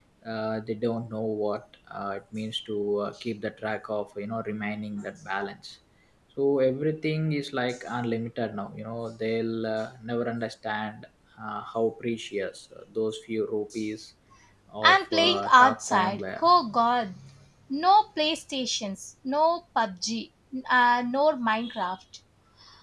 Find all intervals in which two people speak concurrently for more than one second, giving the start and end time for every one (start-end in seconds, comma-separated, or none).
14.8-16.5